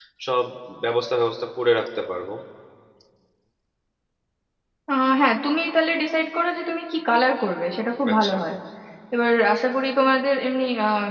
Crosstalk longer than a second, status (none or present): none